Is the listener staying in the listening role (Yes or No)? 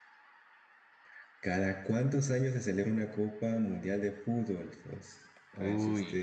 Yes